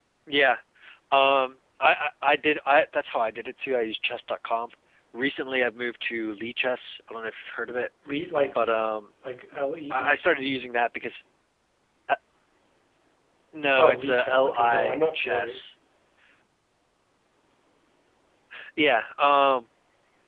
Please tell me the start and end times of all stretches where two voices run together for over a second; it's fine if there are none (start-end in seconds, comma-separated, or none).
13.8-15.6